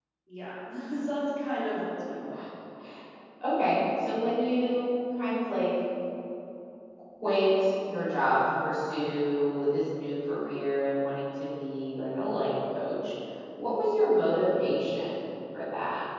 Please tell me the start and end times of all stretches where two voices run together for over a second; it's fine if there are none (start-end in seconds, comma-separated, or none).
none